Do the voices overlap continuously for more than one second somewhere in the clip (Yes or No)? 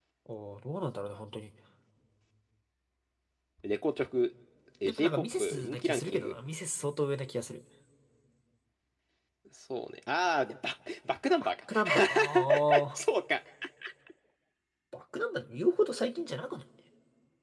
Yes